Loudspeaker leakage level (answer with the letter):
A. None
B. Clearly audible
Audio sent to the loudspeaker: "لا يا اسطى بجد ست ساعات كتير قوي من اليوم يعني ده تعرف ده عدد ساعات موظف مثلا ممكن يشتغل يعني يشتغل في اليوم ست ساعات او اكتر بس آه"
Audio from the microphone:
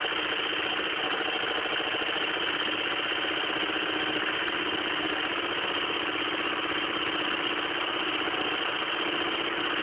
A